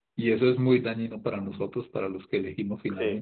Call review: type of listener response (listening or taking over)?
taking over